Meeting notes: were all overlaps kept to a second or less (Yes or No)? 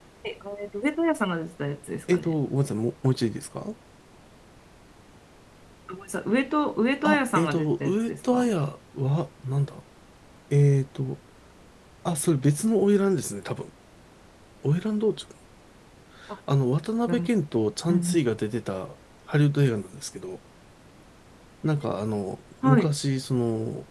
No